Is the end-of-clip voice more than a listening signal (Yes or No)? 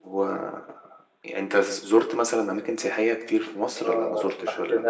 Yes